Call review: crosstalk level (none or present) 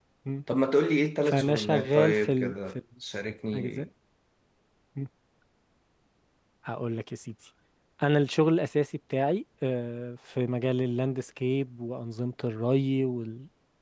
present